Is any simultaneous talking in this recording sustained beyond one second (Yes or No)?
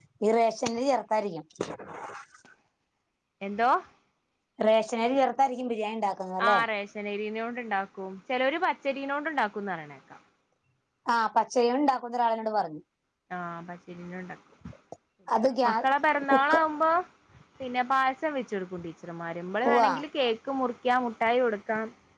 No